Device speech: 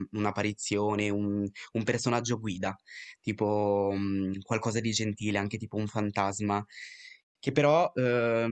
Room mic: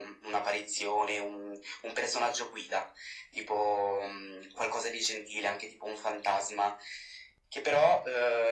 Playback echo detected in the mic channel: Yes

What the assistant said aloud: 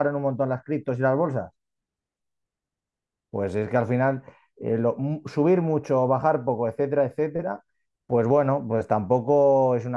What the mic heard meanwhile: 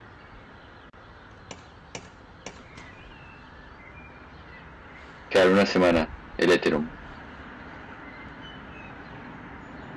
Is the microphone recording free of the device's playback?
Yes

